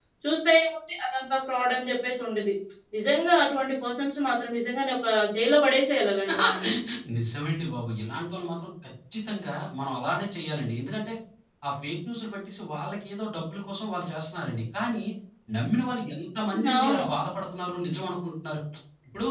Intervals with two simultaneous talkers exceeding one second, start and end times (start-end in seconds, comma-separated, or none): none